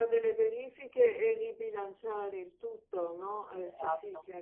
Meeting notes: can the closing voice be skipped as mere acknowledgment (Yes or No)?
No